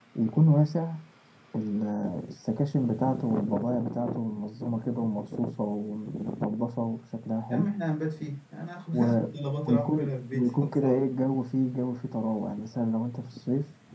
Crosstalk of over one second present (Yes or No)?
Yes